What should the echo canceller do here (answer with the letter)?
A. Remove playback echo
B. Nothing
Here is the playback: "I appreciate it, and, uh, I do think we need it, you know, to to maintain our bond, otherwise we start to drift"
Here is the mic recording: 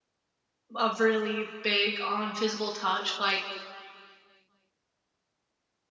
B